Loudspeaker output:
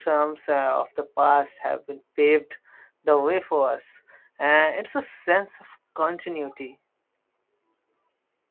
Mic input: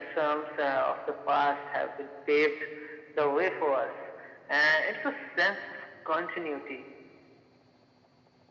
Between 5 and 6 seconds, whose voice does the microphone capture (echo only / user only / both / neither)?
echo only